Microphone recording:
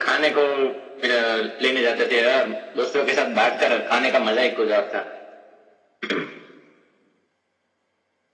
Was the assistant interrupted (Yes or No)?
No